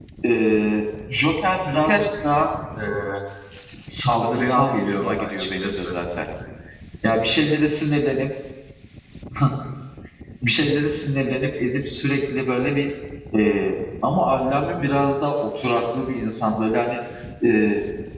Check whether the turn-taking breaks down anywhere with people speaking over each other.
Yes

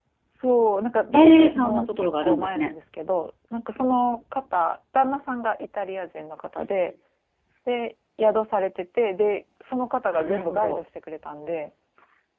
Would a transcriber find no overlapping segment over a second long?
No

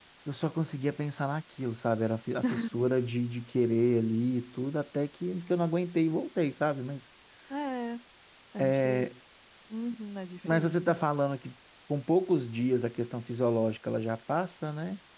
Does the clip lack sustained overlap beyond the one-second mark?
Yes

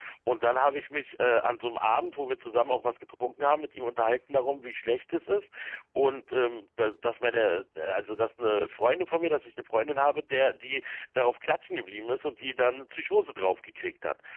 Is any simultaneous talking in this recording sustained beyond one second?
No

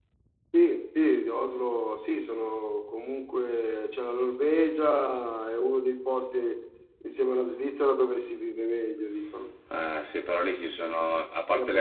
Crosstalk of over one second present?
No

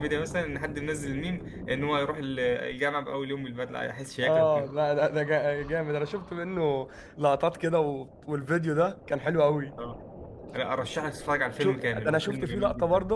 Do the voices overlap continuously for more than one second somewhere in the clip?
Yes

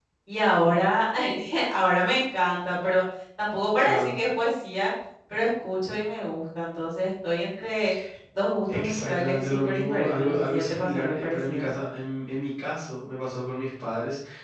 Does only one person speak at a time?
No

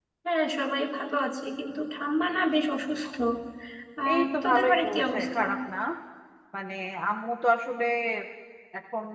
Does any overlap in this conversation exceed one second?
Yes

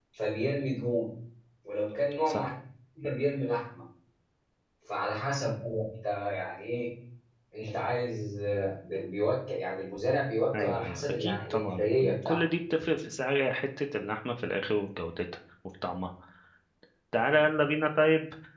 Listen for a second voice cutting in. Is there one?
Yes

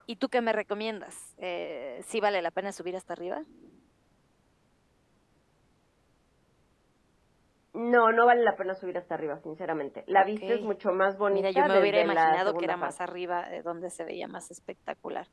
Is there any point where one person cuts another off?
Yes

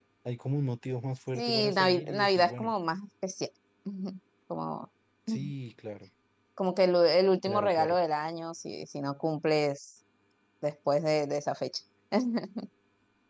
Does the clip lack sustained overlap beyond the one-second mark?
No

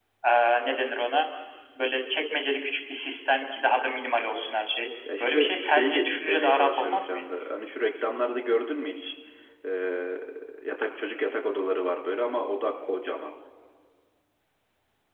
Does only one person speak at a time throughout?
No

